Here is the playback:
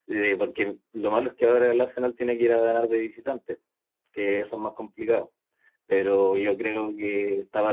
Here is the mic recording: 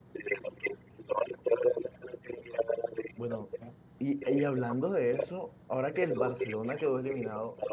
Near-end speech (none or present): present